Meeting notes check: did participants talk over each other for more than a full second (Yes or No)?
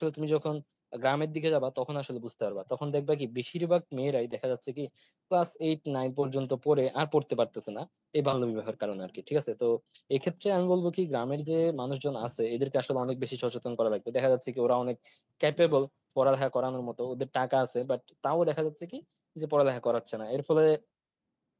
No